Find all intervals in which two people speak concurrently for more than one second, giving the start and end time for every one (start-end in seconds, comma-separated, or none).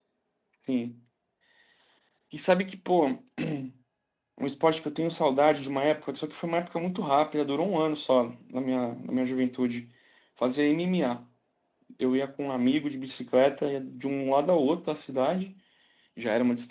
none